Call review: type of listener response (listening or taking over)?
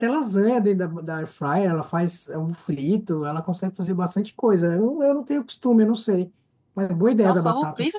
taking over